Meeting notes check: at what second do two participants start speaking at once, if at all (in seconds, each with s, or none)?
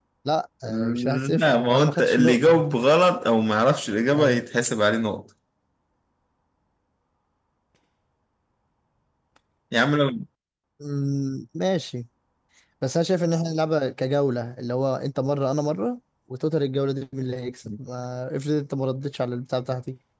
0.7 s